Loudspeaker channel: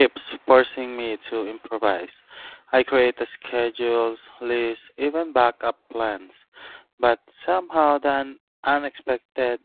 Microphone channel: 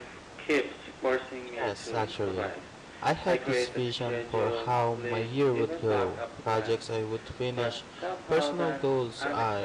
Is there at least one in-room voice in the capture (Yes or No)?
Yes